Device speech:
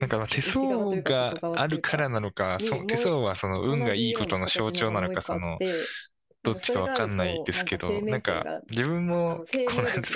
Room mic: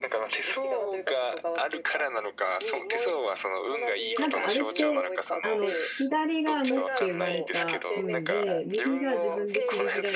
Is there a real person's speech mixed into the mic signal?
Yes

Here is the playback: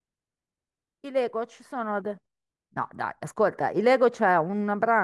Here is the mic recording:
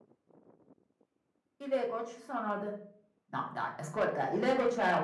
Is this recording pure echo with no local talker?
Yes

